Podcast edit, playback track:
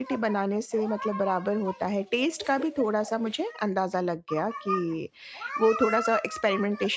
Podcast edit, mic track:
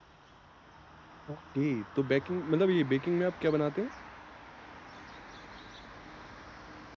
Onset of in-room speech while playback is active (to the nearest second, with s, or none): 1 s